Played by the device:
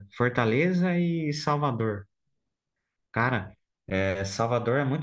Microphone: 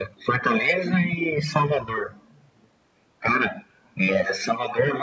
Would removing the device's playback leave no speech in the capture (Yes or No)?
Yes